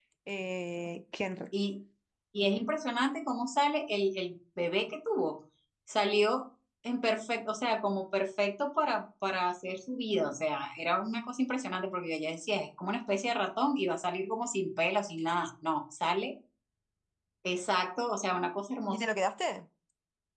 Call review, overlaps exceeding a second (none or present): none